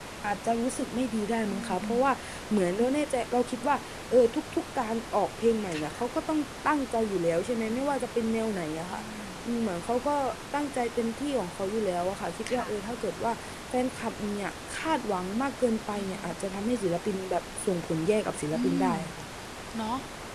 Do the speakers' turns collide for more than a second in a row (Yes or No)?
No